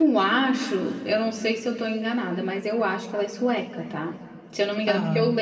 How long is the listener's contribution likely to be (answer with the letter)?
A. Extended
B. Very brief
B